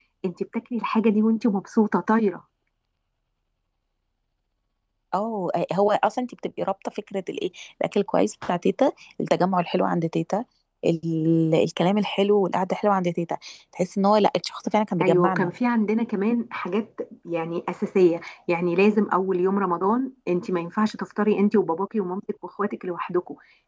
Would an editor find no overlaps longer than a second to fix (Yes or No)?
Yes